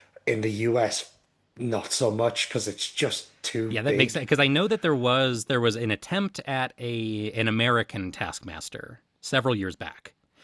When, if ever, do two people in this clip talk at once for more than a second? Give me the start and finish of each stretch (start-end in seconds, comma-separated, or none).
none